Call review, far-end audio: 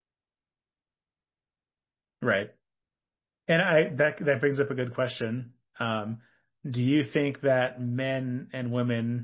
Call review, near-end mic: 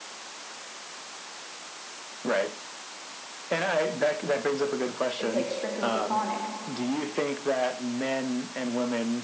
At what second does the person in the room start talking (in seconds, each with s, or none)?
5.2 s